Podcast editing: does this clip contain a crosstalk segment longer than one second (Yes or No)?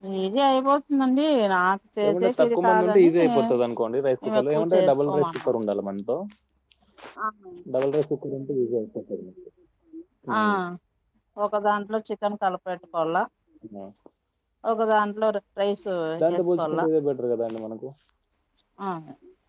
Yes